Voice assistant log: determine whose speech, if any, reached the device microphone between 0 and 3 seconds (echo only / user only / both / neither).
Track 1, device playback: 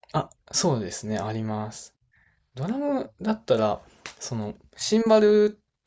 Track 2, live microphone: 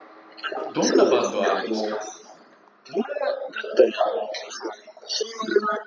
both